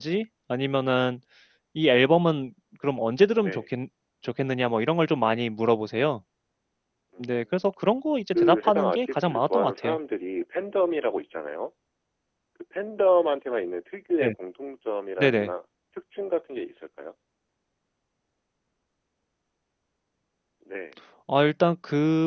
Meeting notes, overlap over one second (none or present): present